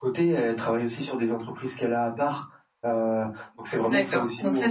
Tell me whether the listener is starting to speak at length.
Yes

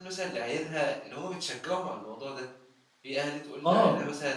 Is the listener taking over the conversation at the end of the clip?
No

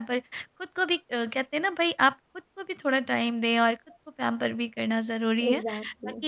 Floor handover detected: No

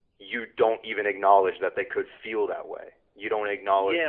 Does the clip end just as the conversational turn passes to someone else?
Yes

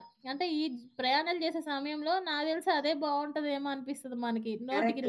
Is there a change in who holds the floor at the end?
Yes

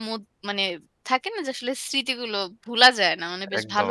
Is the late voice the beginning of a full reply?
Yes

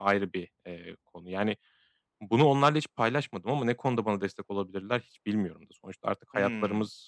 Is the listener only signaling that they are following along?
Yes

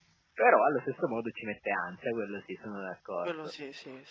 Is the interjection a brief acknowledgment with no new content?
No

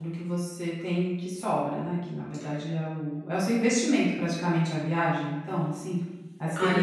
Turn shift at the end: Yes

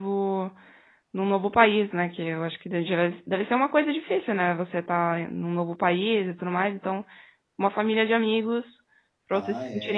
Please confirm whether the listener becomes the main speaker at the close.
Yes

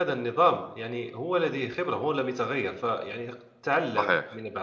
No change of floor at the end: Yes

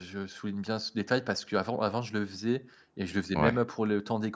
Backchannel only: Yes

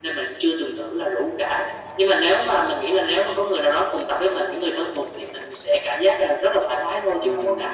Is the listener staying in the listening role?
No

